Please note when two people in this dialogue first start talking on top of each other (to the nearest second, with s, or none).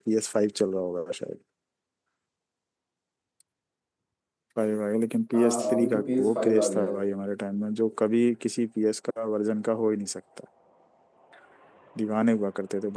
5 s